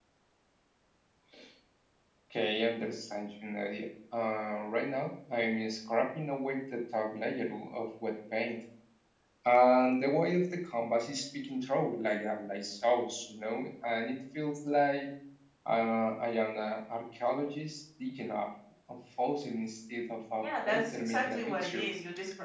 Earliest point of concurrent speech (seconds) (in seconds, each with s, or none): 20.4 s